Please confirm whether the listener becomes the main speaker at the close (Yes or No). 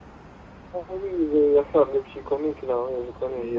Yes